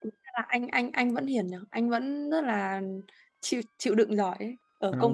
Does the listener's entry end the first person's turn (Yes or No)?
No